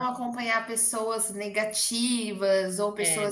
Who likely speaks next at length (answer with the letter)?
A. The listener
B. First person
B